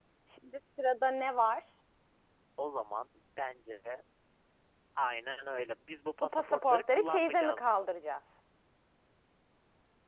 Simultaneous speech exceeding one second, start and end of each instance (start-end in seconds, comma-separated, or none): 6.2-7.9